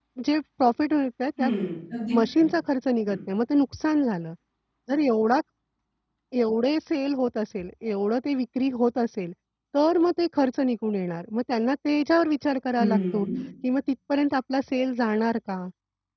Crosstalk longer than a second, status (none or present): none